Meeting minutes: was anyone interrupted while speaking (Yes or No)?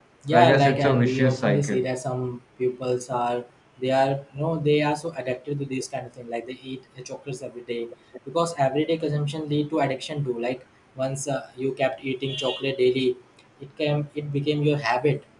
Yes